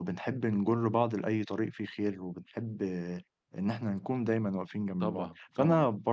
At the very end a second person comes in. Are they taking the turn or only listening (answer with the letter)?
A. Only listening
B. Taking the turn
A